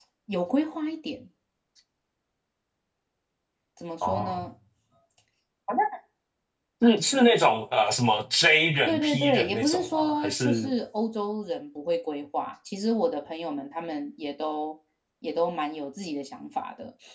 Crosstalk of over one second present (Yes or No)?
Yes